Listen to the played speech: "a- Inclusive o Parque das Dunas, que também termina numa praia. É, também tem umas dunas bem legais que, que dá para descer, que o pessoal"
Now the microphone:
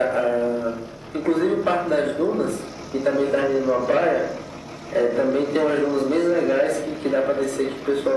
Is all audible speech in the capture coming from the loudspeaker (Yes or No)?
Yes